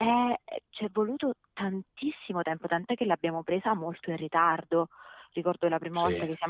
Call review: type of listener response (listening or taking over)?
listening